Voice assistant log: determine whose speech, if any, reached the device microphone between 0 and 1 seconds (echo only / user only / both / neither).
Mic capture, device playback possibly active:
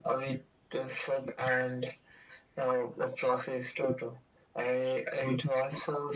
echo only